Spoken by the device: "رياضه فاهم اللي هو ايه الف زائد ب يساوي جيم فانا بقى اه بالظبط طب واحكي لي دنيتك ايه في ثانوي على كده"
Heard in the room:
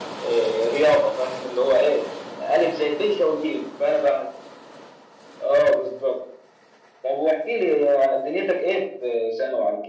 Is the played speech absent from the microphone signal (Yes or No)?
No